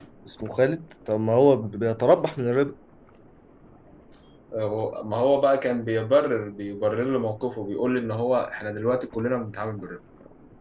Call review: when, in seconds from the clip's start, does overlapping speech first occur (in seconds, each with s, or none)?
none